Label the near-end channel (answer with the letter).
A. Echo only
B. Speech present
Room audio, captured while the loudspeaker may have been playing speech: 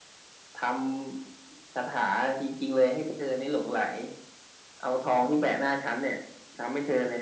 A